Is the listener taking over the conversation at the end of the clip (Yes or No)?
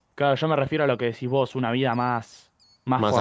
No